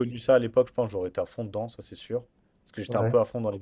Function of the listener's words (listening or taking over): listening